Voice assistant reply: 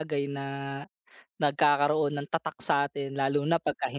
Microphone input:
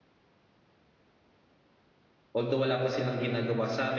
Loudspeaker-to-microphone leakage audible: No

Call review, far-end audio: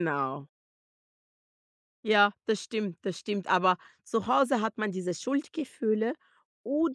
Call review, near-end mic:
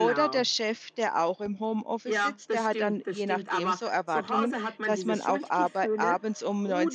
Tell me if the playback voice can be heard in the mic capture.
Yes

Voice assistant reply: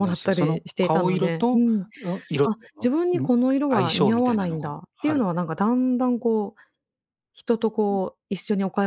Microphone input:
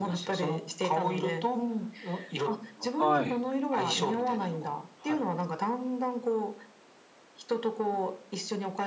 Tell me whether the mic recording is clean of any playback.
No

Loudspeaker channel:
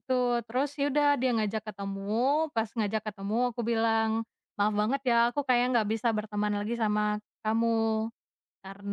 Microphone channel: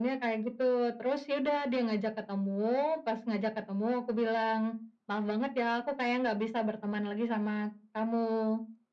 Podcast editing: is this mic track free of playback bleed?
No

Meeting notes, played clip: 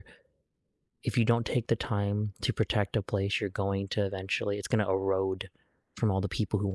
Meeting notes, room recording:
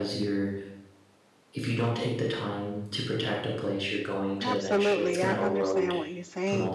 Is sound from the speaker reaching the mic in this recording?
Yes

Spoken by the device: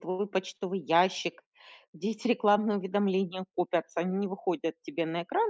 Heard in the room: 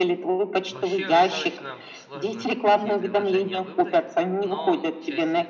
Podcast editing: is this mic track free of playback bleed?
No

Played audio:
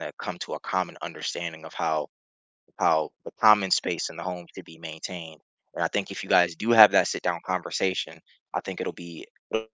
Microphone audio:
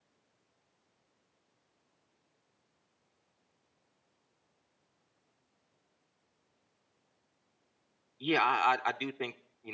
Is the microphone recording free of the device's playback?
Yes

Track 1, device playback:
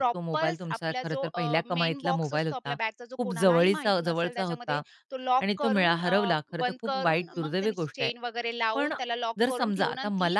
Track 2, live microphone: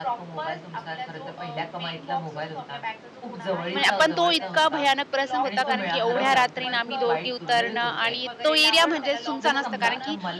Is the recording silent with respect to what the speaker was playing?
No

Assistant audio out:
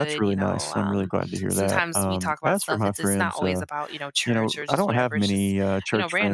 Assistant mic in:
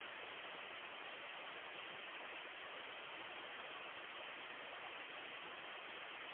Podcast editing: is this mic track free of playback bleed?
Yes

